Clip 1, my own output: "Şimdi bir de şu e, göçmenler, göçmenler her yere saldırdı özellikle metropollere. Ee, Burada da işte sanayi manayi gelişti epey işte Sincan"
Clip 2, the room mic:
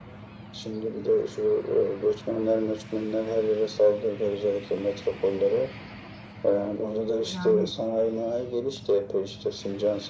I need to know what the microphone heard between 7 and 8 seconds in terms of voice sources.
both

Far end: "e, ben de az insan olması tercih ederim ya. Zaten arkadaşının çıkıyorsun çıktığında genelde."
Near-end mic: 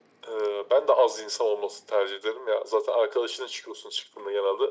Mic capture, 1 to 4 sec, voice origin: echo only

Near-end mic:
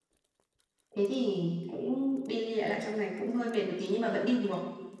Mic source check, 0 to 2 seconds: echo only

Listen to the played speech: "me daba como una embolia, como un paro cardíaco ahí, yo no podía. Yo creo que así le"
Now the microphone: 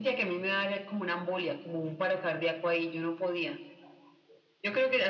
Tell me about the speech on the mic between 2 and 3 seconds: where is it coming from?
echo only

